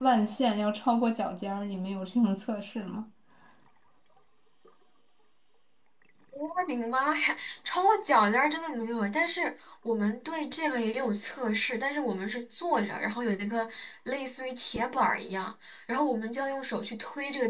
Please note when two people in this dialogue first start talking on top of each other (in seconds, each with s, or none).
none